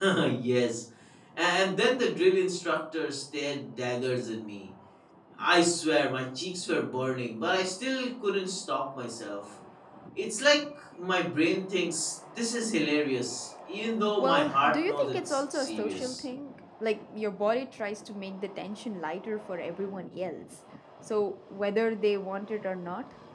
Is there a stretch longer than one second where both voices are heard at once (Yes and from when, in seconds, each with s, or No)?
Yes, from 14.2 s